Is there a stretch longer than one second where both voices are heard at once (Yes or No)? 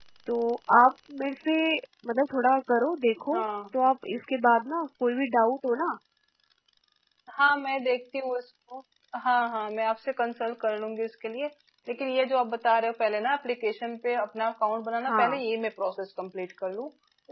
No